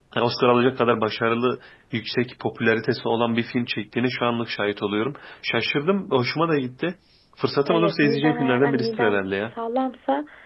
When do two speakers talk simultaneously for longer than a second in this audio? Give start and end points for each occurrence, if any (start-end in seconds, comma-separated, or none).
7.7-9.2